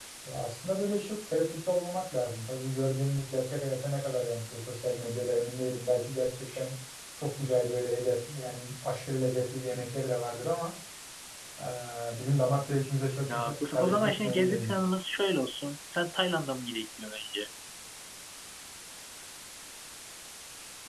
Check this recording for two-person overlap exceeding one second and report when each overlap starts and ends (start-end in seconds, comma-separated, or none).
13.3-14.7